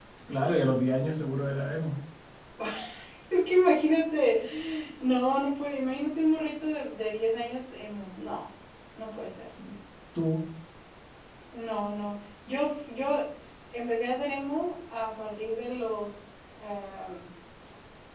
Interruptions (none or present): none